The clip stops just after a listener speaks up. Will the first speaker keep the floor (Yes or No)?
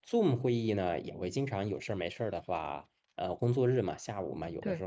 Yes